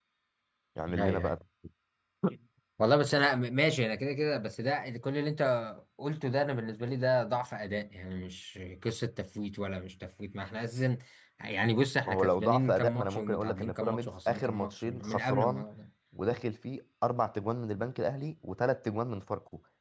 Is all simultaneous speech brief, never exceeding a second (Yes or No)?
No